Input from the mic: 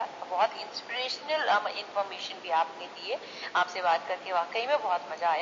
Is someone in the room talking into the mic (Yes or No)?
No